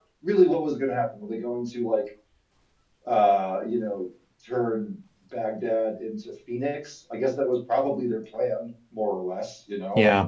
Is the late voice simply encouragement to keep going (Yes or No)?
Yes